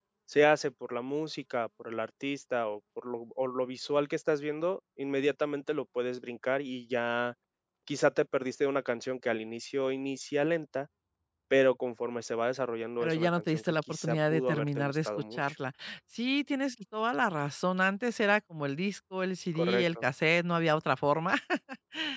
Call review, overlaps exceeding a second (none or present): present